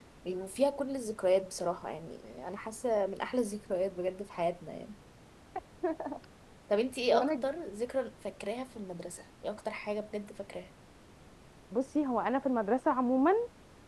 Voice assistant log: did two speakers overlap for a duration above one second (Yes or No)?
No